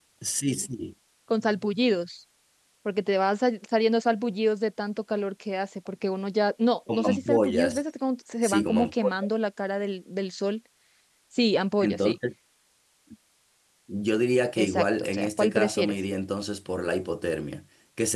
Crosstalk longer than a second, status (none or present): present